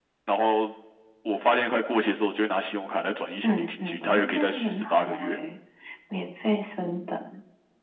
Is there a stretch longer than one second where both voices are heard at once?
Yes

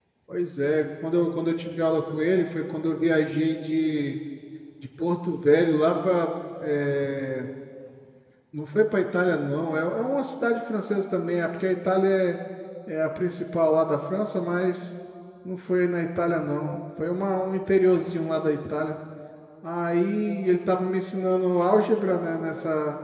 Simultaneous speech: No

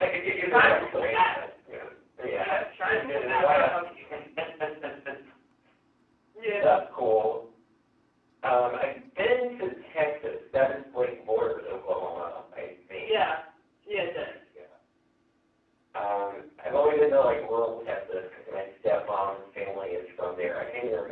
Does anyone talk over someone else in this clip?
Yes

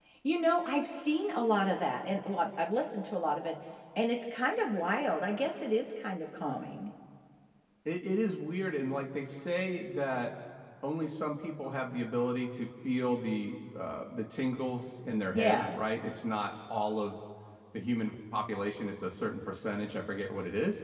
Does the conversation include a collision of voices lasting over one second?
No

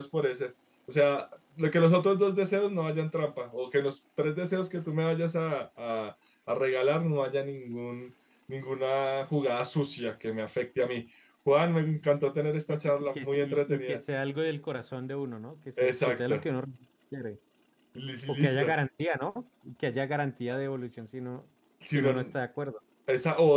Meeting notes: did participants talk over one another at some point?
Yes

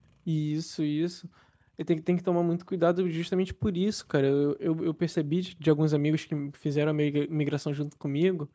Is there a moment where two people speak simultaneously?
No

